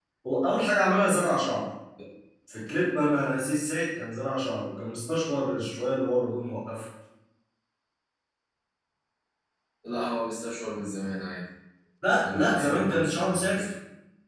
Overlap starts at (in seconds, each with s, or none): 12.2 s